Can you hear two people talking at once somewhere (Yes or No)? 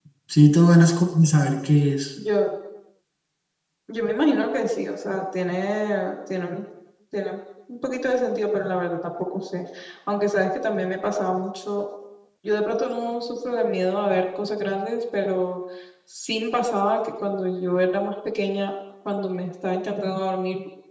No